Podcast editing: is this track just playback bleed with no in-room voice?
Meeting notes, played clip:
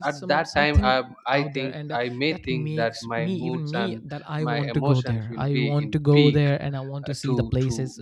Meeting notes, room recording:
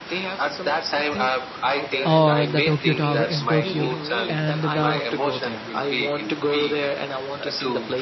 No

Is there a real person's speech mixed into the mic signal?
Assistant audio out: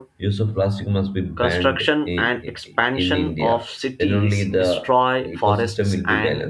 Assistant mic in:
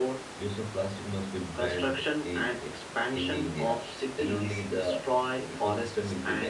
No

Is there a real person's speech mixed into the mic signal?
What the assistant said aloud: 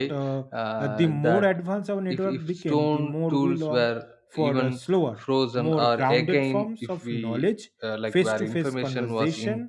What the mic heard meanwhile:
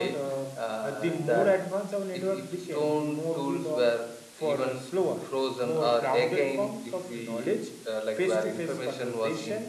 No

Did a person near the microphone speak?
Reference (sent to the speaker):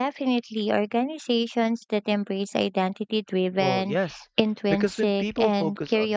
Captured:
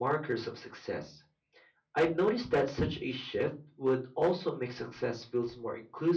Yes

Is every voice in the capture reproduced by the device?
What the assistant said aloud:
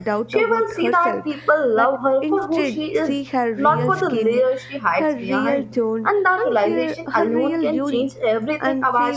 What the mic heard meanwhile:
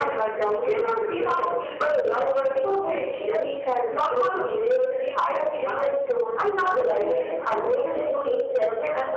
Yes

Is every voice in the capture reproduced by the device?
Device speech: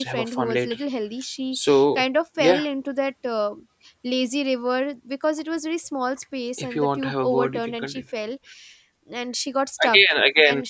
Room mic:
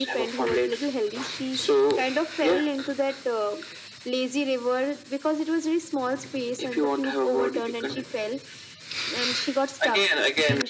Yes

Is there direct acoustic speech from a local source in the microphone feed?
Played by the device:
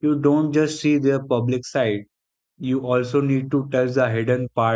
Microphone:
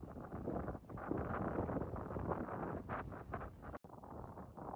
No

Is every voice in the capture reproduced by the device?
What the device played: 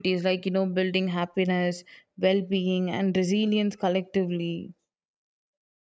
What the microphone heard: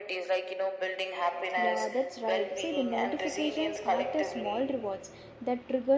No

